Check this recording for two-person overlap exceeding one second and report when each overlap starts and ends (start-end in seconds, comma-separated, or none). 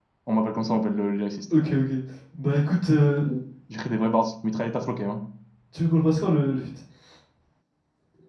none